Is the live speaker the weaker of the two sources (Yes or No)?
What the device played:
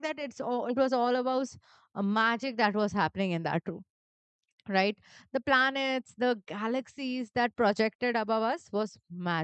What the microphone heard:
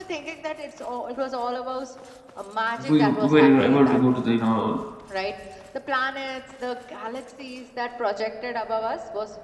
No